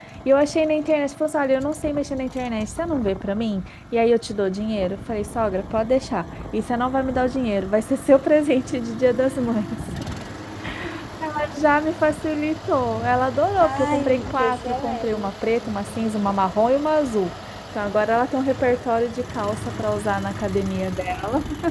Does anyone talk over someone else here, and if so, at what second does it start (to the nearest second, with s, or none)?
14 s